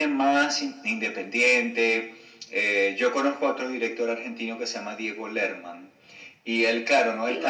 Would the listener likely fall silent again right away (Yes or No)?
Yes